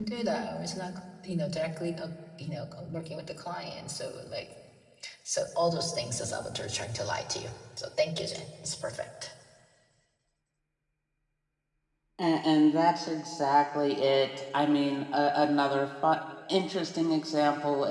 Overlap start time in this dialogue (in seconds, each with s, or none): none